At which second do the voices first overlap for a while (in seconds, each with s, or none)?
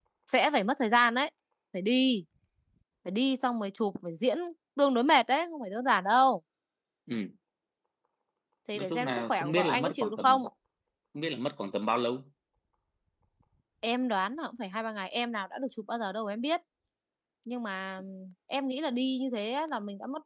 8.7 s